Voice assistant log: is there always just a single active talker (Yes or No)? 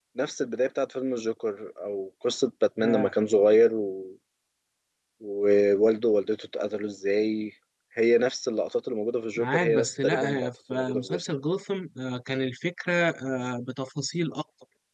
No